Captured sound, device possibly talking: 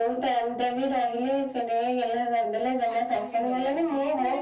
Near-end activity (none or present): present